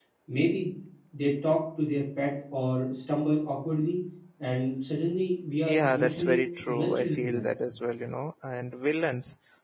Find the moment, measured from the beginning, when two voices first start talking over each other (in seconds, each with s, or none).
5.7 s